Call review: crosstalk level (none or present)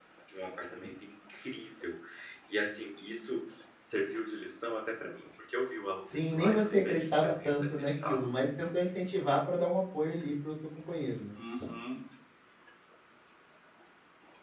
present